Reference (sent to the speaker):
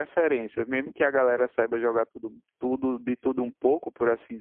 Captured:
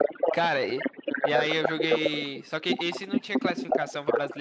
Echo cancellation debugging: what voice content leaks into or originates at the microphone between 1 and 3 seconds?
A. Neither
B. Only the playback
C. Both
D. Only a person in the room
C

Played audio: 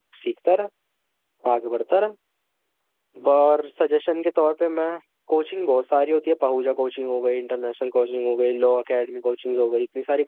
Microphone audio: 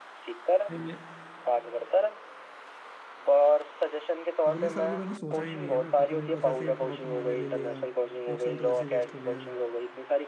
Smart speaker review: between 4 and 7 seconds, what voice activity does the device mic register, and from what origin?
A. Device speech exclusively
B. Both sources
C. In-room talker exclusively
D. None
B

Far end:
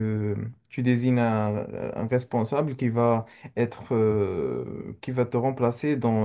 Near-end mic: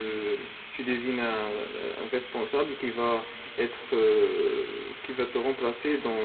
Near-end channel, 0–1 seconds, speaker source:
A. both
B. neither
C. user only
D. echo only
D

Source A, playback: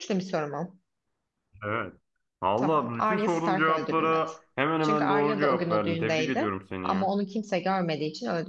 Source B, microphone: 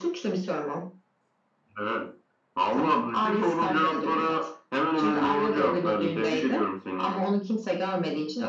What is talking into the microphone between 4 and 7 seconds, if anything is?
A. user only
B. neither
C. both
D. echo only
D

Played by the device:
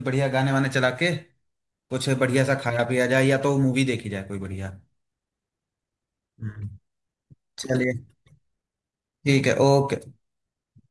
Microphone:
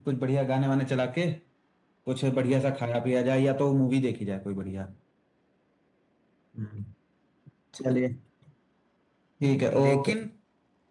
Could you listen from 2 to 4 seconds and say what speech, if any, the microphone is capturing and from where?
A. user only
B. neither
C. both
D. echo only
D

